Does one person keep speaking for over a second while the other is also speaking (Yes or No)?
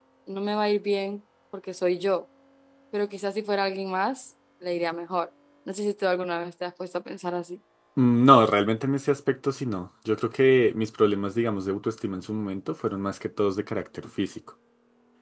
No